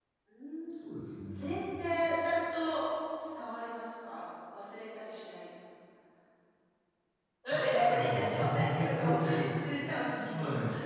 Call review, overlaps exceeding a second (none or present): present